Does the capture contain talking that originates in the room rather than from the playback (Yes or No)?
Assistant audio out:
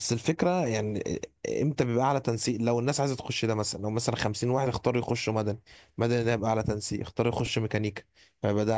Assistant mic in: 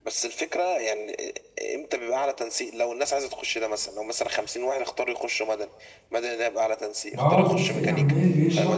Yes